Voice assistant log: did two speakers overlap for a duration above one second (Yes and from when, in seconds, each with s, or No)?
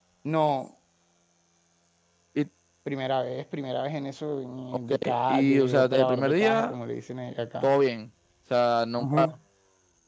Yes, from 4.9 s